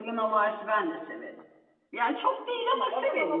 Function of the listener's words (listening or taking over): taking over